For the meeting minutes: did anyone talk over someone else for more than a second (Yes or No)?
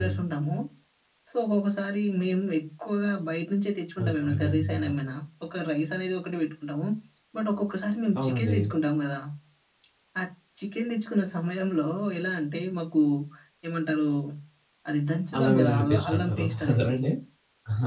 Yes